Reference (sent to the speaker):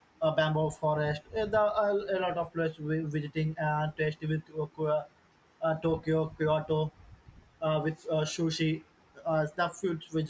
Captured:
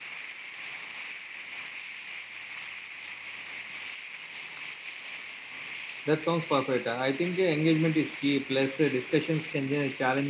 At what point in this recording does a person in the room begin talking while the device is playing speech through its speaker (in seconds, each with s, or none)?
6.0 s